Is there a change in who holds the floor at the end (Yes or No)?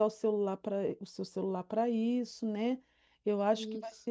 No